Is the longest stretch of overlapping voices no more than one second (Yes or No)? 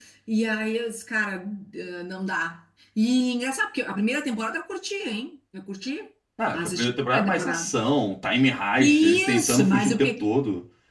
No